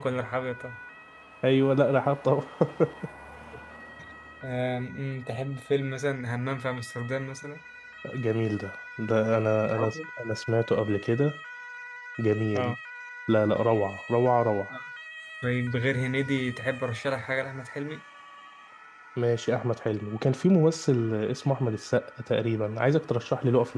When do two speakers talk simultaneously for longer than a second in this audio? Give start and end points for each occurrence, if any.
none

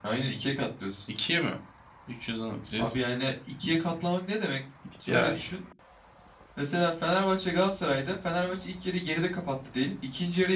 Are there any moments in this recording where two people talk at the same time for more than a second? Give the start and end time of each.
none

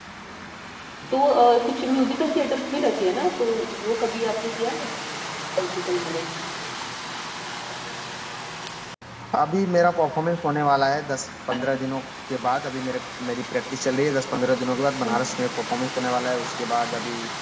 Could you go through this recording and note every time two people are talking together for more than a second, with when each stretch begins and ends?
none

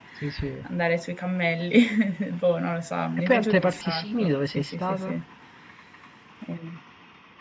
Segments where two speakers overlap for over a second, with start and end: 3.2-5.2

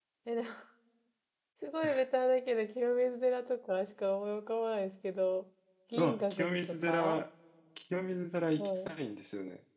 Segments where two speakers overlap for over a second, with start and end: 5.9-7.2

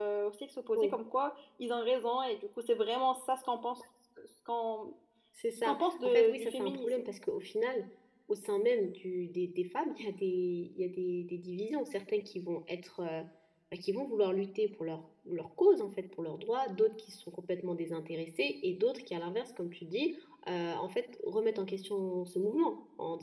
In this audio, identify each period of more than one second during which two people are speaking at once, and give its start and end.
5.6-7.0

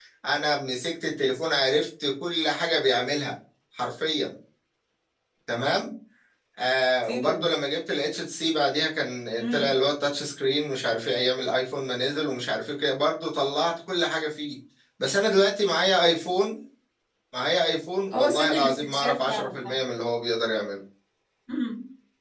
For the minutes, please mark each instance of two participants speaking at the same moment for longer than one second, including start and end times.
18.1-19.5

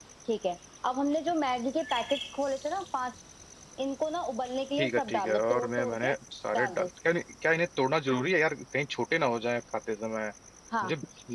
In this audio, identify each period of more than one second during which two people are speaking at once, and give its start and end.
4.8-6.1

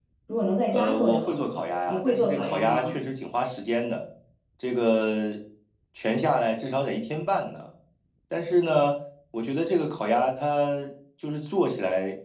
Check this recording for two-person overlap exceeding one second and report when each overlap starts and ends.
0.7-3.0

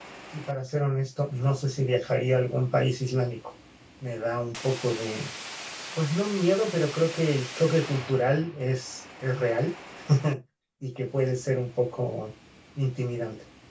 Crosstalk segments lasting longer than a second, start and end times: none

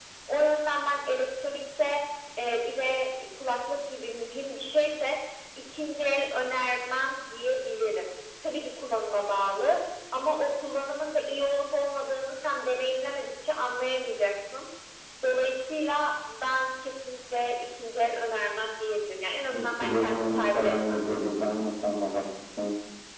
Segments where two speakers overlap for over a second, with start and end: 19.5-21.0

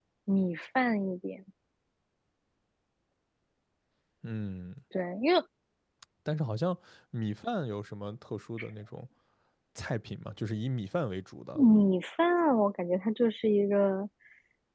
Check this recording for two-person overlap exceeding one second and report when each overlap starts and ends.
none

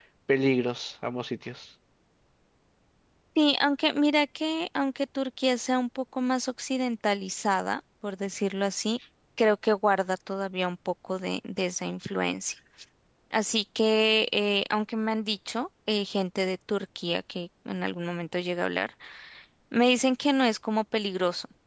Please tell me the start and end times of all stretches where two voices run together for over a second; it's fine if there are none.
none

